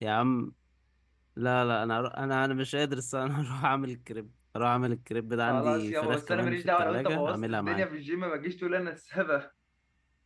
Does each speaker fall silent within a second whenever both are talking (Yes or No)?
No